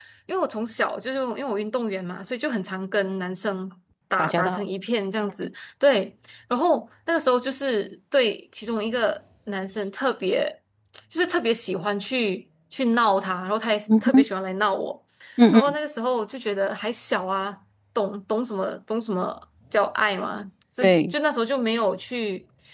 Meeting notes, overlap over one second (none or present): none